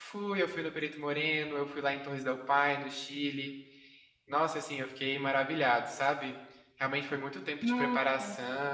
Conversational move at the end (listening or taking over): listening